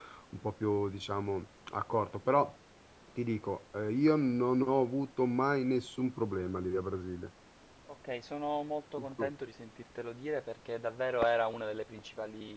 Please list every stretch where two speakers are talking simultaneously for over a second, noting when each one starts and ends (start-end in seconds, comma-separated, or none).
none